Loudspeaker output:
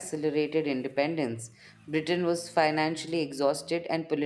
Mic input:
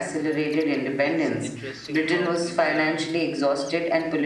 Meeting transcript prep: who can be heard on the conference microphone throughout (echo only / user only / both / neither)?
both